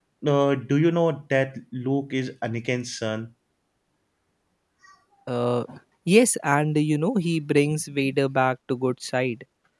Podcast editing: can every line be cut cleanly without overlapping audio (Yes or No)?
Yes